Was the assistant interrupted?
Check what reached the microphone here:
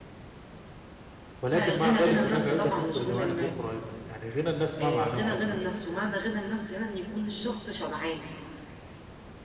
Yes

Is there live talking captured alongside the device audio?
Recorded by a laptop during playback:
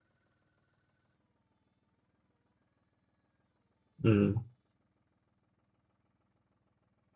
Yes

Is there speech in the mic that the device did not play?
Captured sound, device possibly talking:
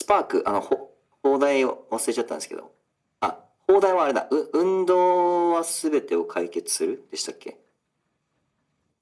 No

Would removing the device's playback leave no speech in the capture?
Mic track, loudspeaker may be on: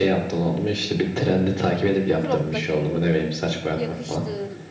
No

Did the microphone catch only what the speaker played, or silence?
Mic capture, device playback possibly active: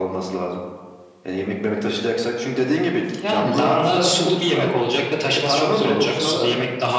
Yes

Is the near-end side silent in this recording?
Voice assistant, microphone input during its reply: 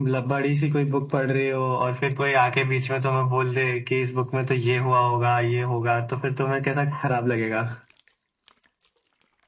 Yes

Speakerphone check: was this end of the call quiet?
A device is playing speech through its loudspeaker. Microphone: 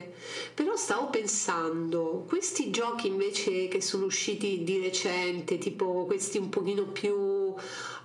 Yes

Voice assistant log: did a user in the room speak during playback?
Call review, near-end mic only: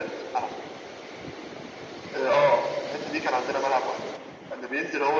No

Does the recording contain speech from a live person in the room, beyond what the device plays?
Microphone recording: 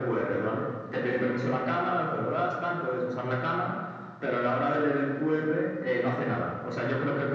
No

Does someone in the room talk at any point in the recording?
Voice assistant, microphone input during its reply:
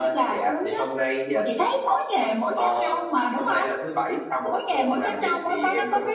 No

